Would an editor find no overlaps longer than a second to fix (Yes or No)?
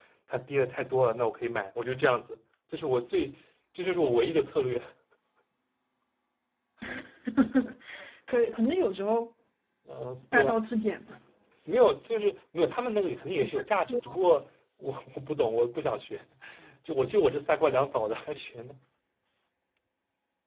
Yes